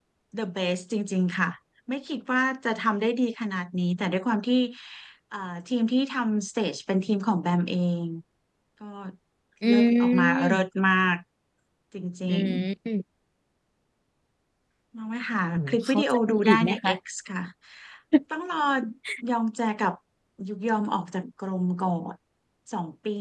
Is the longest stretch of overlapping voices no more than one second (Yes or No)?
No